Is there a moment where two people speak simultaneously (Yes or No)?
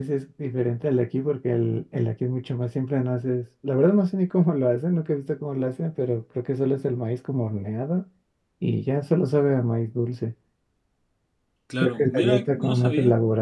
Yes